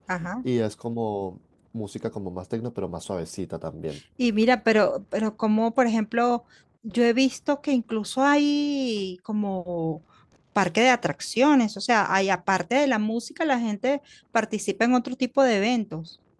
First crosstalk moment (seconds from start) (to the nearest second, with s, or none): none